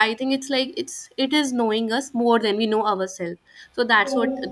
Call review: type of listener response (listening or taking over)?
listening